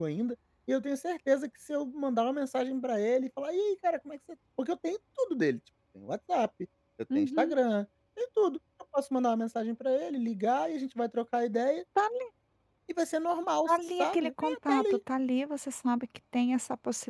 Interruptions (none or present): present